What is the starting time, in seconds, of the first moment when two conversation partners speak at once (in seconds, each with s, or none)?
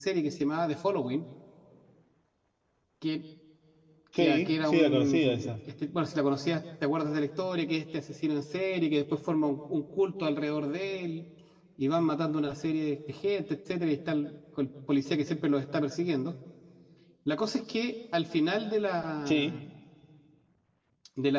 4.2 s